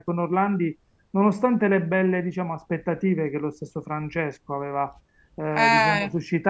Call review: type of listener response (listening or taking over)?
listening